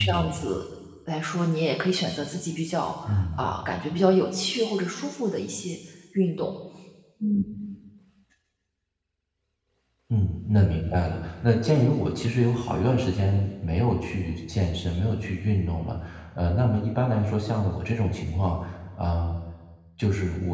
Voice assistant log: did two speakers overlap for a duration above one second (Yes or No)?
No